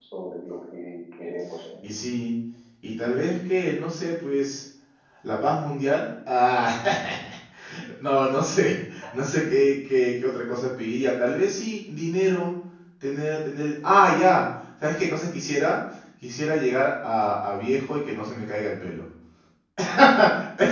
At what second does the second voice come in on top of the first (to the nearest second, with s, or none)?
none